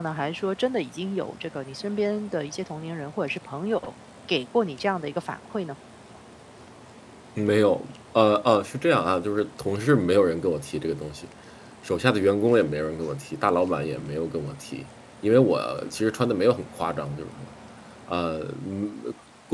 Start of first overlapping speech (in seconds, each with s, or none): none